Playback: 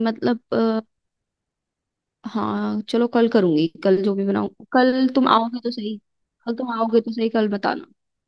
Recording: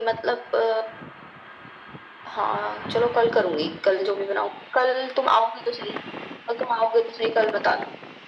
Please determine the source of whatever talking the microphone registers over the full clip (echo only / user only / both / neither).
echo only